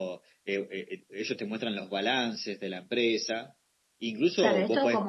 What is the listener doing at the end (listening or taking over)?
taking over